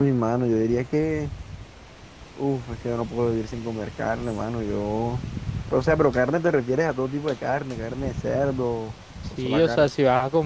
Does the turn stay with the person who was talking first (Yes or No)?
No